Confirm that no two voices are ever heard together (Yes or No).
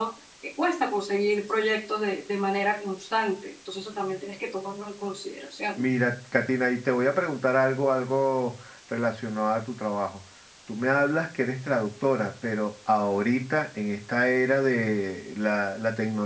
Yes